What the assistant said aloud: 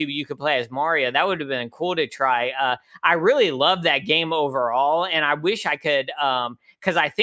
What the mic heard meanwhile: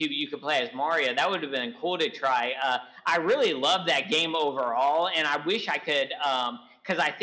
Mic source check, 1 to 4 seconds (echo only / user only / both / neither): echo only